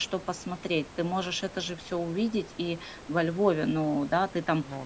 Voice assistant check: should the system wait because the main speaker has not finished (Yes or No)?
Yes